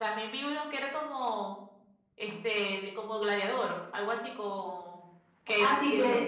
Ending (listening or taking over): taking over